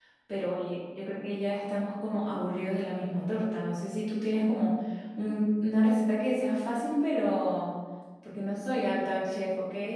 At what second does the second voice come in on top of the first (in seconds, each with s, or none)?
none